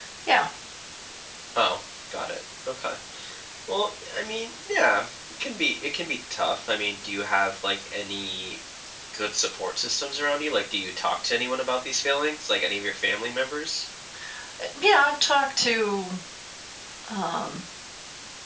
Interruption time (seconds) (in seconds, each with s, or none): none